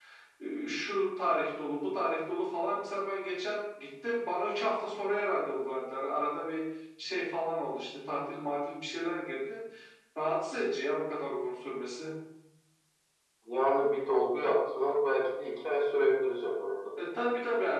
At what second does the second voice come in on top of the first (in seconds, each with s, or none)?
none